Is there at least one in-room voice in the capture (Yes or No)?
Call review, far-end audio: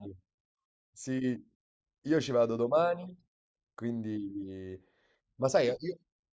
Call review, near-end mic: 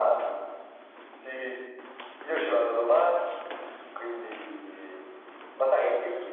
No